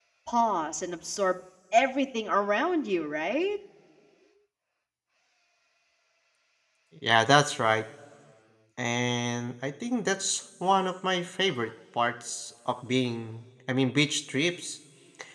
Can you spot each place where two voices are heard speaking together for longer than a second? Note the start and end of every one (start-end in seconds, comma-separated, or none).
none